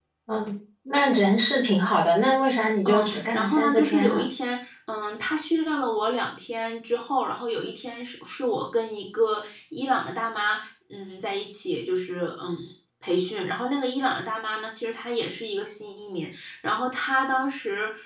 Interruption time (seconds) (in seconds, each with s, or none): 2.9 s